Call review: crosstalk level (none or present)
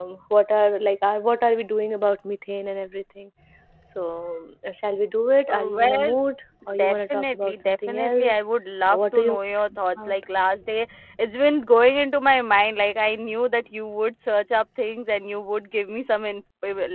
present